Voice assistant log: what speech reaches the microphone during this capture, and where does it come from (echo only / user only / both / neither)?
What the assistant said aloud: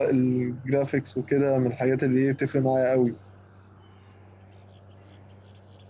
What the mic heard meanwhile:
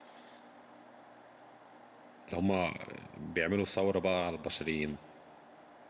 user only